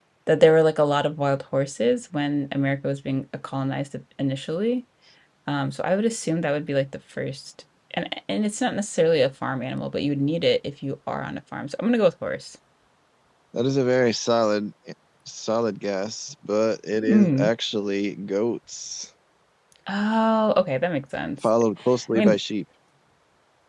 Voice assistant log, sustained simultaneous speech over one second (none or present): none